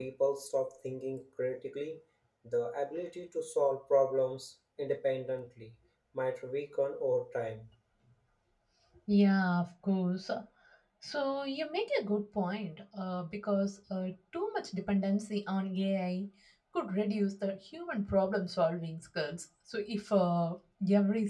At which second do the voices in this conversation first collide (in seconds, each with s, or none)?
none